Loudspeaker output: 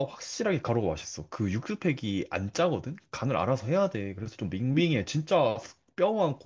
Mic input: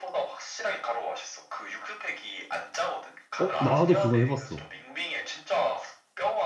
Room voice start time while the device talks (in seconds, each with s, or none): 3.4 s